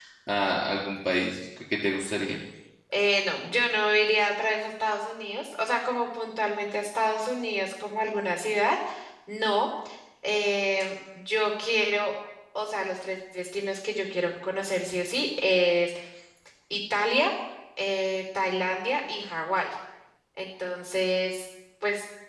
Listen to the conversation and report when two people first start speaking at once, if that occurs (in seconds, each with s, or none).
none